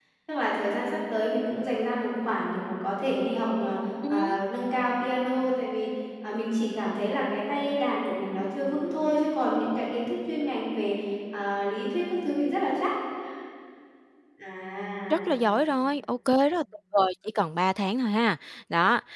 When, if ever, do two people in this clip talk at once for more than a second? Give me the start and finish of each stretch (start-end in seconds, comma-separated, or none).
none